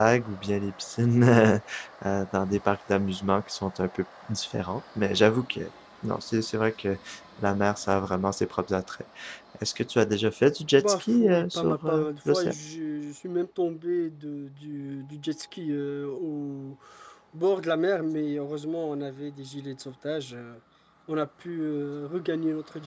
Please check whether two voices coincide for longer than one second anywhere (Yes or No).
Yes